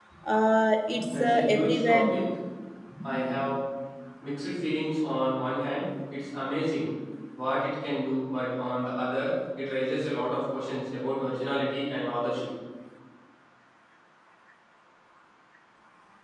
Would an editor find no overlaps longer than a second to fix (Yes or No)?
No